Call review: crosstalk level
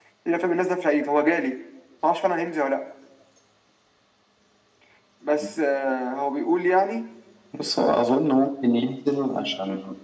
none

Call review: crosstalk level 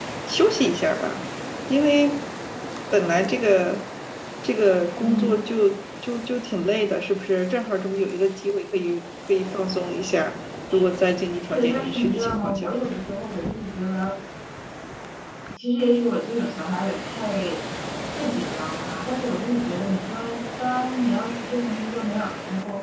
present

